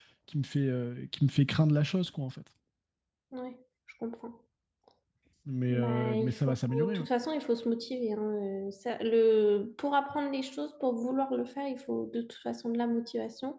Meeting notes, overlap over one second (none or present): present